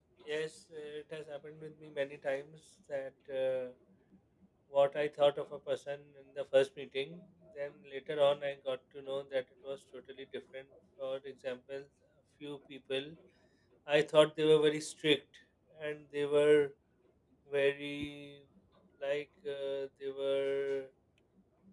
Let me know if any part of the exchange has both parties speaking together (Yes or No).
No